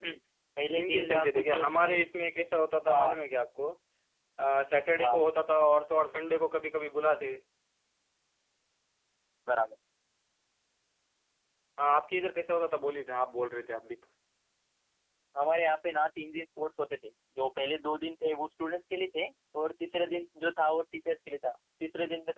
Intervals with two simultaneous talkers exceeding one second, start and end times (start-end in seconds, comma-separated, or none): 0.7-2.0